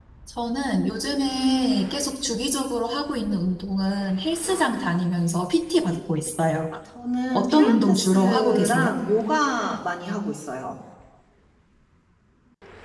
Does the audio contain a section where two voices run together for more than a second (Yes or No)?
Yes